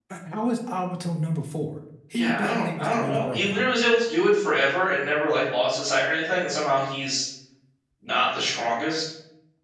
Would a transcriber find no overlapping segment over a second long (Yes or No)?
No